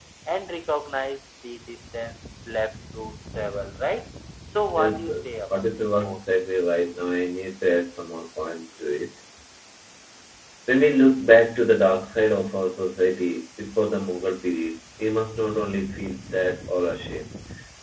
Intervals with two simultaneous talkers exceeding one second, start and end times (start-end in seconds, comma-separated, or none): 4.8-6.2